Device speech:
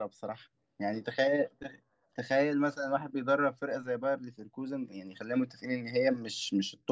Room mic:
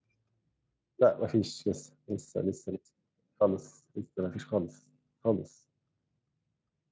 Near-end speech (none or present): present